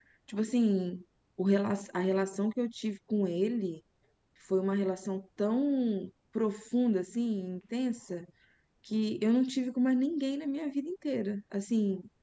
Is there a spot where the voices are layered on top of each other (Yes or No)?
No